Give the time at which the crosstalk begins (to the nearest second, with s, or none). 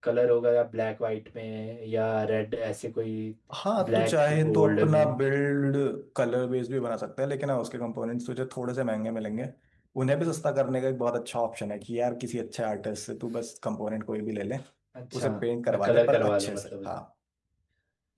4 s